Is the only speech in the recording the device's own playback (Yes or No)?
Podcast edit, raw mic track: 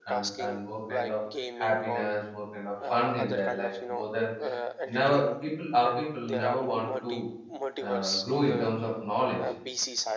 No